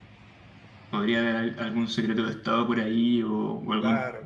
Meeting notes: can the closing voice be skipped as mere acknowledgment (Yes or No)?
No